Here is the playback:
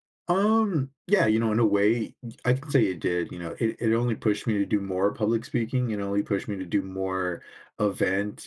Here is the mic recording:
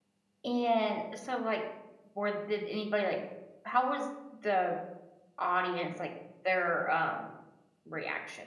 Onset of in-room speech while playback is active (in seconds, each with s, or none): 0.4 s